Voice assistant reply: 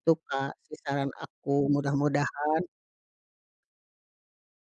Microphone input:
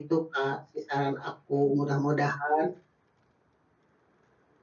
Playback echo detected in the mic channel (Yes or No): Yes